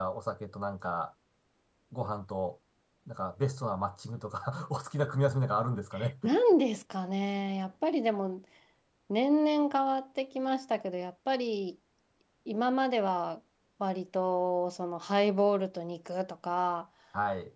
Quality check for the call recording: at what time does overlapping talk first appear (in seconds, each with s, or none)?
none